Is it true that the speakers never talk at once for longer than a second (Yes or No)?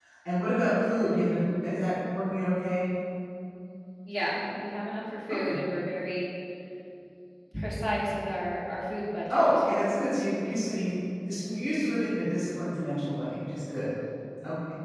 Yes